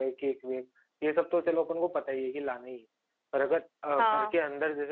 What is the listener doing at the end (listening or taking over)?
listening